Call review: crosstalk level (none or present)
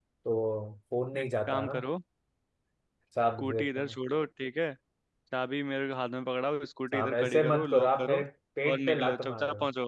present